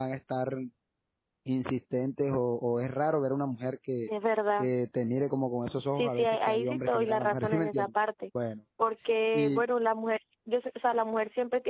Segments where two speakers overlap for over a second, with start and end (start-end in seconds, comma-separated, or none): 6.0-7.9